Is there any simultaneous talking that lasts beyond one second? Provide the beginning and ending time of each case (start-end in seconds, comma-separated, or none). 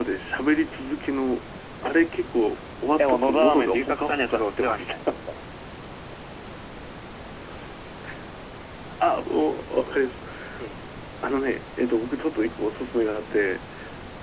3.0-5.0